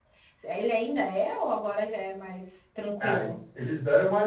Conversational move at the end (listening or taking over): taking over